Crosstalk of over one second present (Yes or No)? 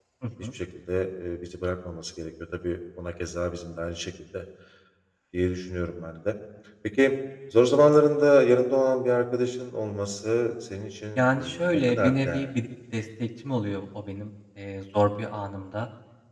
Yes